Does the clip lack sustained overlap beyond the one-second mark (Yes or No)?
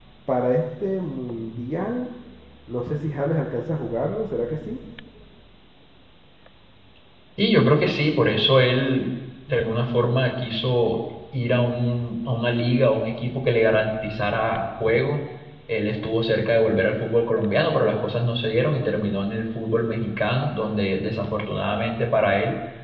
Yes